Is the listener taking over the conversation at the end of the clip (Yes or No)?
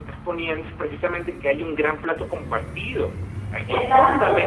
Yes